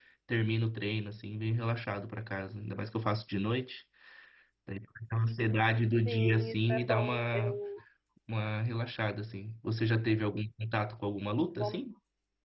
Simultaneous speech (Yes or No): Yes